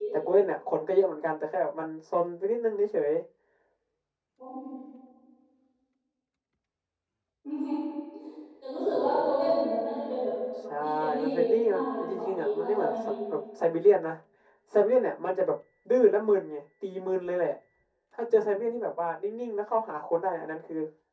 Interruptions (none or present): present